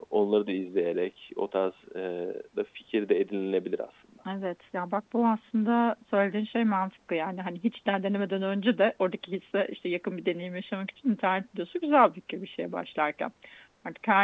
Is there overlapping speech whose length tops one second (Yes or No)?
No